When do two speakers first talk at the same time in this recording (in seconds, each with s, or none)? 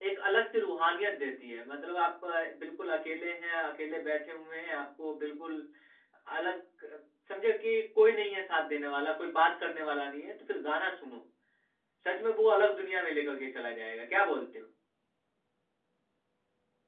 none